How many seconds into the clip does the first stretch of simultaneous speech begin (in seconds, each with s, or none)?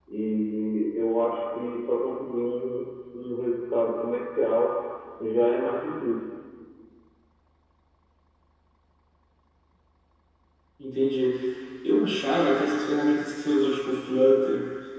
none